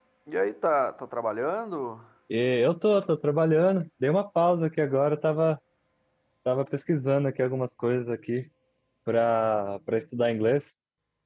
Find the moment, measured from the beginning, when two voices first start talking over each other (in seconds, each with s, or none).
none